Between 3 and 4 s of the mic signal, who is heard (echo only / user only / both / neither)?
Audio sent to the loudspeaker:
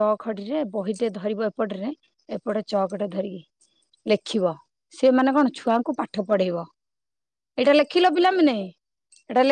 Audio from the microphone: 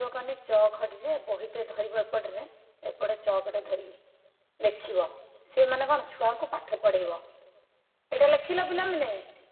echo only